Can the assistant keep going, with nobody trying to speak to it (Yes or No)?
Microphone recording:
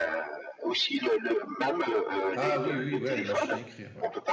No